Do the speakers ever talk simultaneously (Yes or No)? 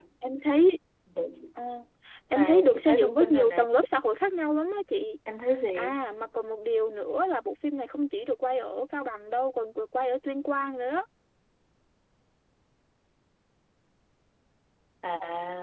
Yes